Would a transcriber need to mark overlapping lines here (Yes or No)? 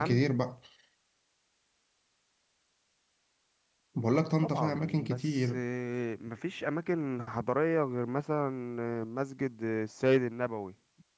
Yes